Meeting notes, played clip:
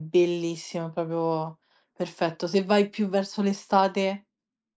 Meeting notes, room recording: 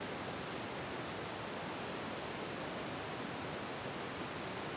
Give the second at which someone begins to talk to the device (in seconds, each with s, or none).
none